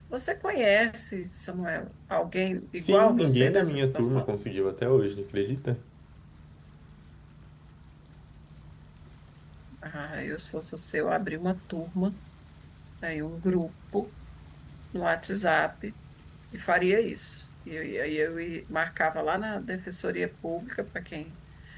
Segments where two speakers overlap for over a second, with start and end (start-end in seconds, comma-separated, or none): 2.8-4.3